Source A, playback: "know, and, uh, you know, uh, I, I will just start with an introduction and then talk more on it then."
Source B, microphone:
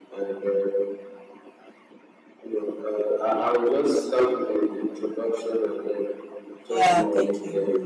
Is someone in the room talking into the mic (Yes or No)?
Yes